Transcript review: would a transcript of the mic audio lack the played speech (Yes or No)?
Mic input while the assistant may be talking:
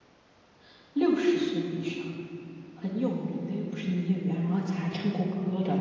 Yes